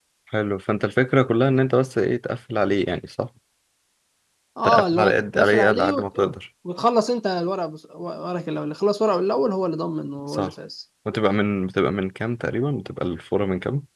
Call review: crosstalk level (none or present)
present